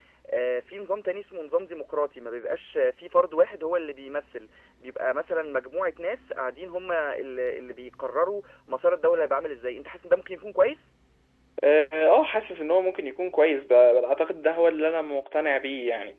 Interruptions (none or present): none